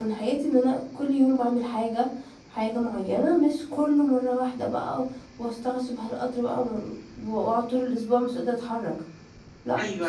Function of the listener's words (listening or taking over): taking over